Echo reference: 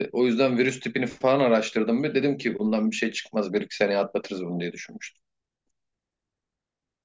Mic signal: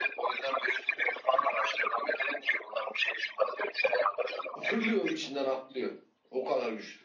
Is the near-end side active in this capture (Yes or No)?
Yes